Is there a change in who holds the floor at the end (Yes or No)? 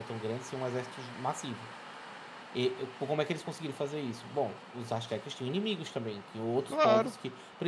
No